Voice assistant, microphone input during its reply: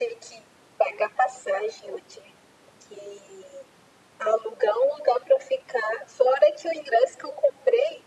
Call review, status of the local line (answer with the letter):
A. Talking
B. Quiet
B